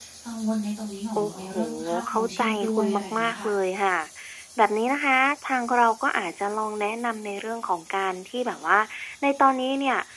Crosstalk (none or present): present